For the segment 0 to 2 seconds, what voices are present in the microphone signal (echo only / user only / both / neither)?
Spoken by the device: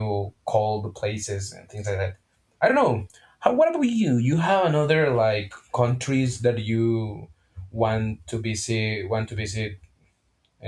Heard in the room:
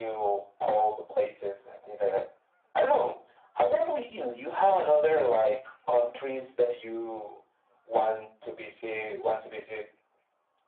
echo only